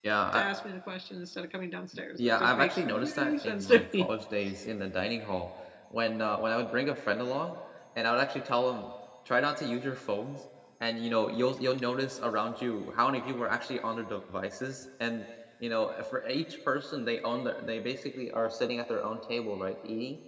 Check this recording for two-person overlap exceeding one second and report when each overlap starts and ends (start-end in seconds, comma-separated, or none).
2.2-4.1